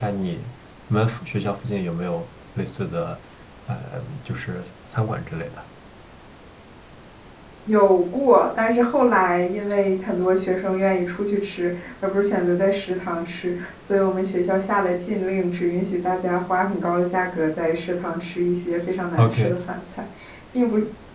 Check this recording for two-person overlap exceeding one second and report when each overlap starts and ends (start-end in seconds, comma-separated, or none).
none